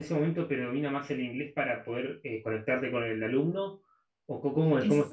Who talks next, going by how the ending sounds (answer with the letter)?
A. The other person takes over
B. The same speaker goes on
A